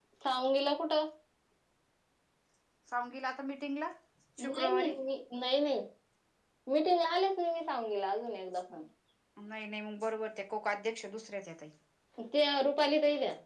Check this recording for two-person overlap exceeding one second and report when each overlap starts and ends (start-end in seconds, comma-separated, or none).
none